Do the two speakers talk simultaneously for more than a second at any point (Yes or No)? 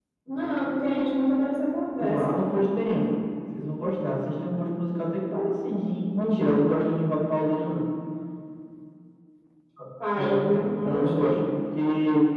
Yes